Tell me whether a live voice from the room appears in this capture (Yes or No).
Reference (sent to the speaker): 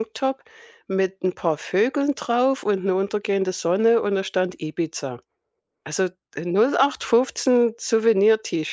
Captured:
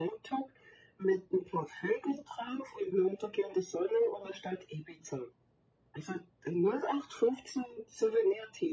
No